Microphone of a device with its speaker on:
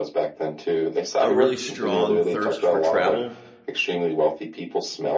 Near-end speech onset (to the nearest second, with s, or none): 1 s